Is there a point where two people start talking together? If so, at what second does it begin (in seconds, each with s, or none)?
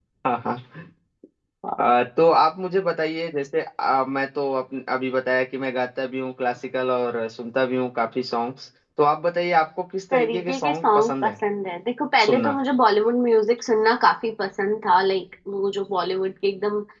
10.1 s